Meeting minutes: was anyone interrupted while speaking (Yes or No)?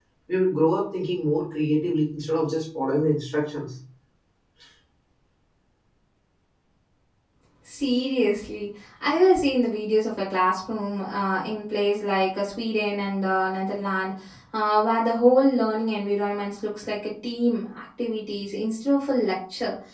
No